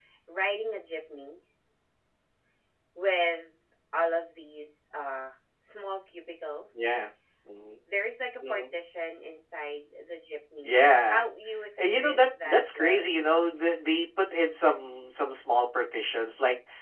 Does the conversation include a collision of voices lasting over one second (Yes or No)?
Yes